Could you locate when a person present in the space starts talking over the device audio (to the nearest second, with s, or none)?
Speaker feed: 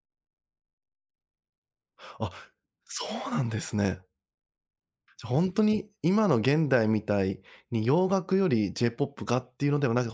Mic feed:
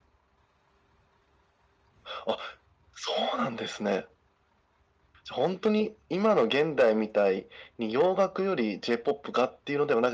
none